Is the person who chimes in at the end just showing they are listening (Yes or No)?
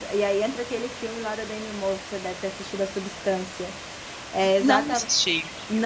Yes